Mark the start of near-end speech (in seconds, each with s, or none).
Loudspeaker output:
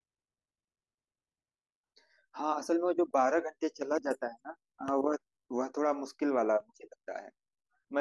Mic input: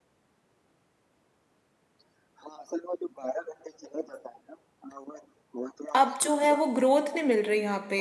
6.0 s